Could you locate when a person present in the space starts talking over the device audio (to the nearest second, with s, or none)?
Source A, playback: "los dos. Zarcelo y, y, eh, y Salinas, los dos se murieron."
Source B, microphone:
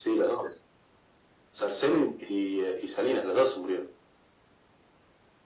none